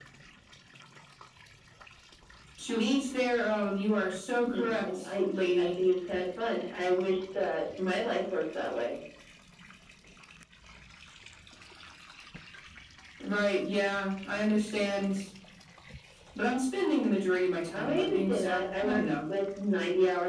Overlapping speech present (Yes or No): Yes